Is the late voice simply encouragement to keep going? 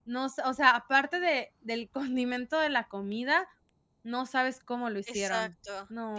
No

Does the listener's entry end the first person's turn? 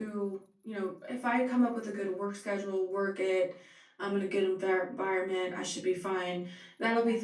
No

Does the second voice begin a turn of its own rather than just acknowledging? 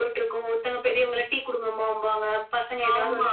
Yes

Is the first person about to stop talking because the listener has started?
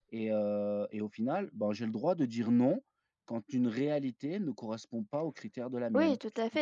Yes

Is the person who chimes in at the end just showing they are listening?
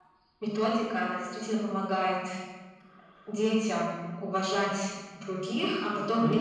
Yes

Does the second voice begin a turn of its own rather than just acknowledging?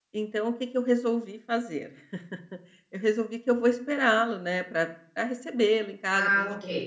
No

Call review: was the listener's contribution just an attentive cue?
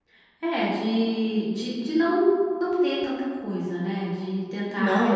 No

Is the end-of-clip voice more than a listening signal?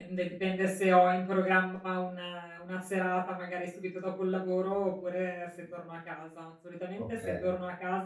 No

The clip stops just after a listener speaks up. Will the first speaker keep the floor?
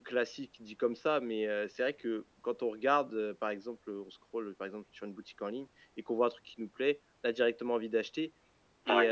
Yes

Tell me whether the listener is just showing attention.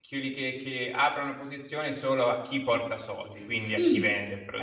No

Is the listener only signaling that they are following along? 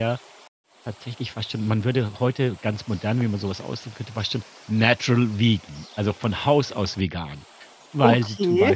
Yes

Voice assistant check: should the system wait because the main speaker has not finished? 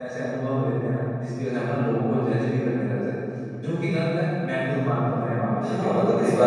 No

